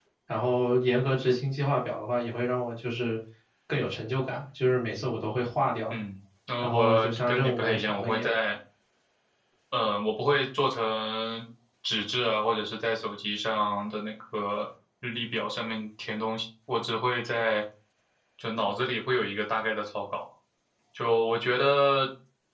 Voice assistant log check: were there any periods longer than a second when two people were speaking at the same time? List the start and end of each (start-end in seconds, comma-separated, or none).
6.6-8.3